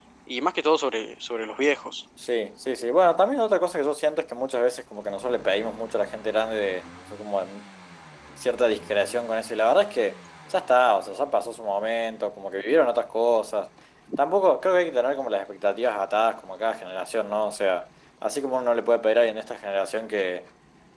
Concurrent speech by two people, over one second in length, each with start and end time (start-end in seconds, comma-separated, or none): none